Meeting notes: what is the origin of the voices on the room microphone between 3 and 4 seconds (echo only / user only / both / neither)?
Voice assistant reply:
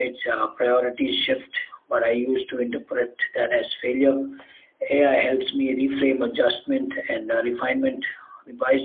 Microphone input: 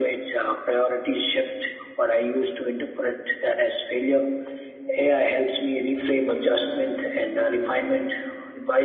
echo only